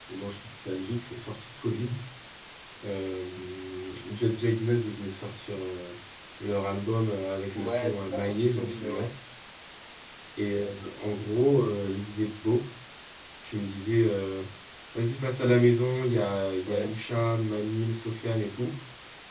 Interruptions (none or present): present